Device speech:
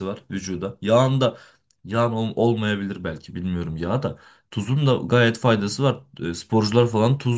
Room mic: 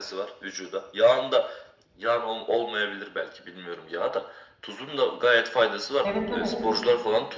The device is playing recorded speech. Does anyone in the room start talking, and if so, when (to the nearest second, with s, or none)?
6 s